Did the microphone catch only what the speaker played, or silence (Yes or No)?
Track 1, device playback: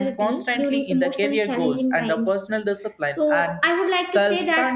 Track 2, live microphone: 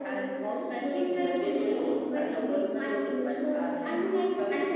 No